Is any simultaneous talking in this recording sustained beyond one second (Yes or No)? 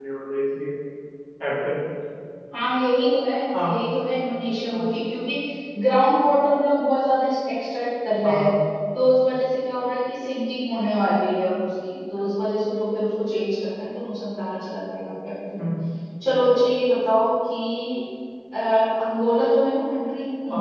No